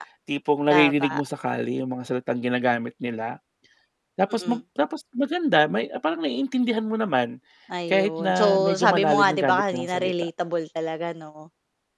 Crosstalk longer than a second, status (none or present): present